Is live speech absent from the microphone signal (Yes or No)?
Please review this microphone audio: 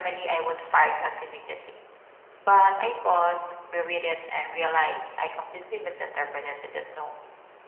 Yes